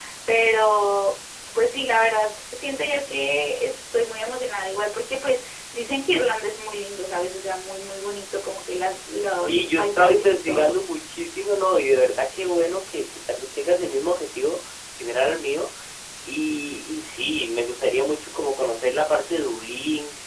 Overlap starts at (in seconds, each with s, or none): 9.4 s